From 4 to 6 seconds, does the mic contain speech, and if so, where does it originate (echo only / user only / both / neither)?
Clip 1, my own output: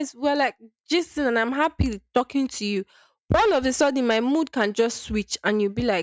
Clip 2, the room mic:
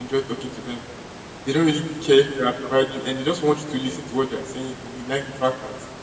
user only